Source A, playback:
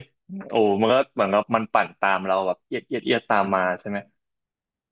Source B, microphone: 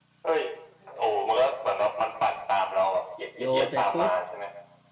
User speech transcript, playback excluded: โยนไปปุ๊บ

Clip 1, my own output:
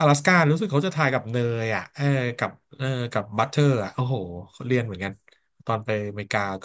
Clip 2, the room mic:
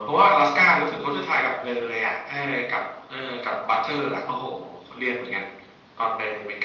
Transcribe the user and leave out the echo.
none

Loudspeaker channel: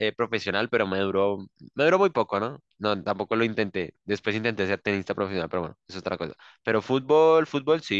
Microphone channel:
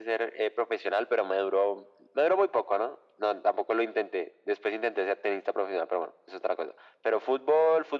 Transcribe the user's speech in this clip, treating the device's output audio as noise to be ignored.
none

